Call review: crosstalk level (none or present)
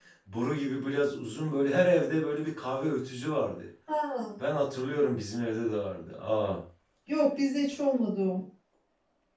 none